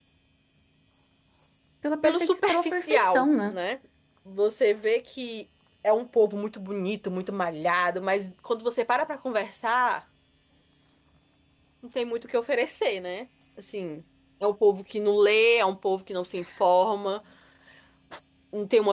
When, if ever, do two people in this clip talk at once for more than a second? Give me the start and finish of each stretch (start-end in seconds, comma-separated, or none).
2.0-3.5